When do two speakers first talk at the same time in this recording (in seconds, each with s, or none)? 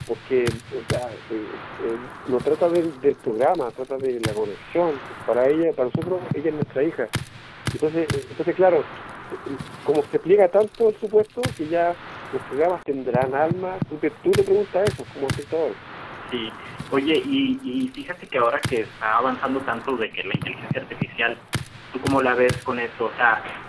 none